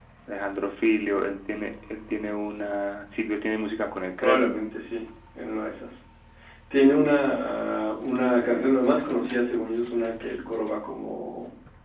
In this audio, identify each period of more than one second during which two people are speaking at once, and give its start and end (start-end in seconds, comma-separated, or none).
none